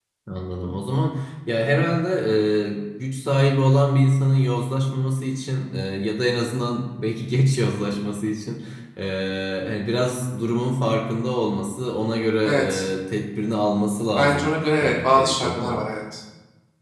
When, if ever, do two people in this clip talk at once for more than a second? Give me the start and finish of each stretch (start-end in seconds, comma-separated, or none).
14.2-15.8